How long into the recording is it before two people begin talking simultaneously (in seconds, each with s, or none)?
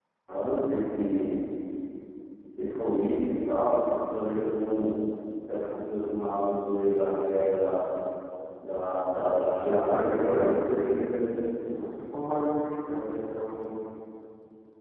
9.6 s